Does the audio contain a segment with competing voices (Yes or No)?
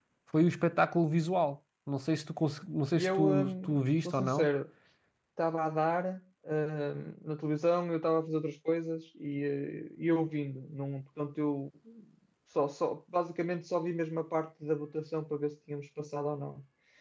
Yes